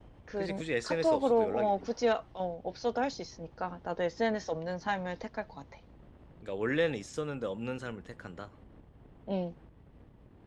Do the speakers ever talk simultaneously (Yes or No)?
Yes